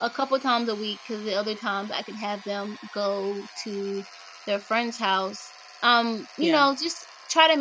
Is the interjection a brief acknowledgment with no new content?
Yes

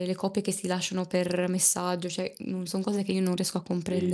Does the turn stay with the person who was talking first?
No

